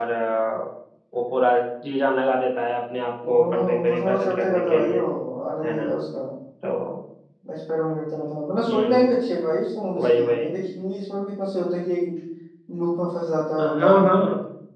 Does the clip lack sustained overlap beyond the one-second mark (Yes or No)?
No